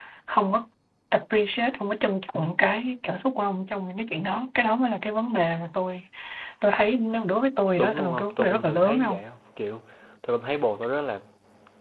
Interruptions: present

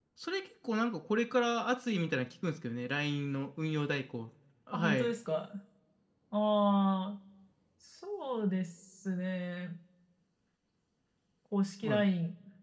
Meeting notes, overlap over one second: none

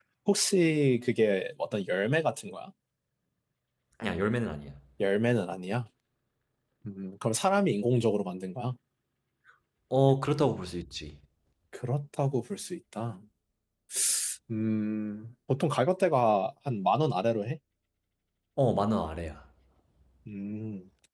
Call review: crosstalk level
none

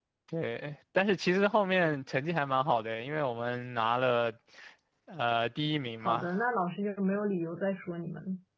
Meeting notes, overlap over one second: none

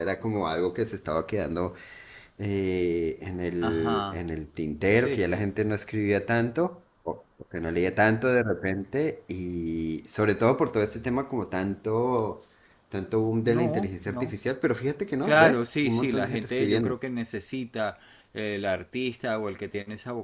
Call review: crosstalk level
present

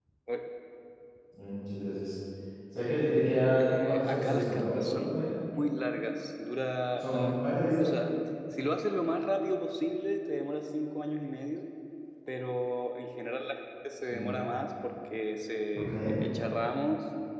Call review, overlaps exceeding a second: present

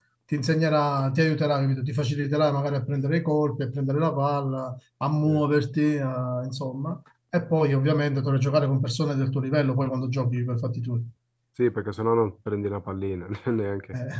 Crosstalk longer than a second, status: none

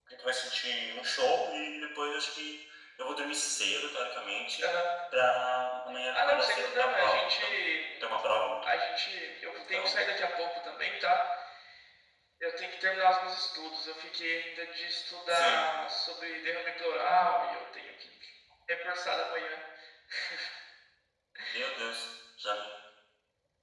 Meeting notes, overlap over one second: present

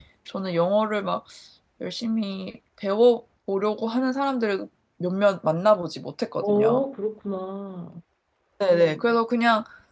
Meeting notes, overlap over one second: none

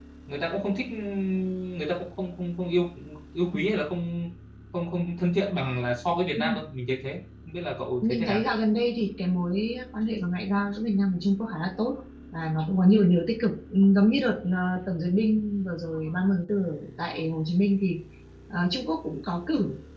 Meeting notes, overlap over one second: none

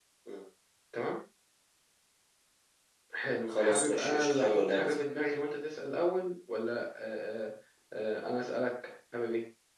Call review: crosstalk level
present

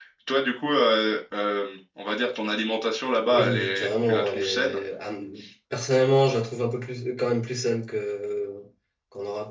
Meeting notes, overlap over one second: present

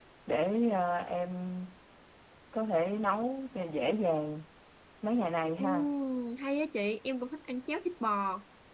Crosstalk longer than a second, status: none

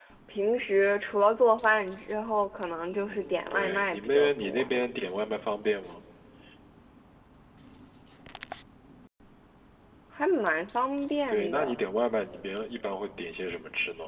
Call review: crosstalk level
present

